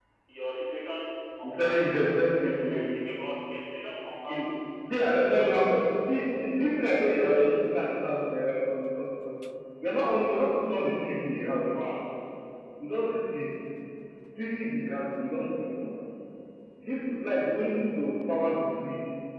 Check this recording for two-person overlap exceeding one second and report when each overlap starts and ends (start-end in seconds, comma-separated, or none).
1.4-2.9